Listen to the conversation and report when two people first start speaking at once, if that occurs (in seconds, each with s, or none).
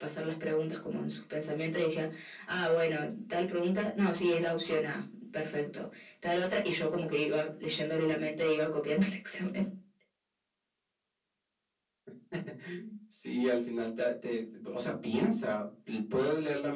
none